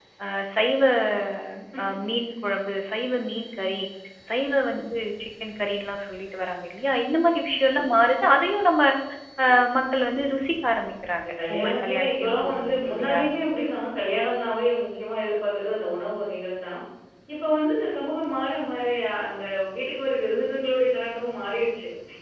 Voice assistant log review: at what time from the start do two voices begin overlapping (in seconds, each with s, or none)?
11.2 s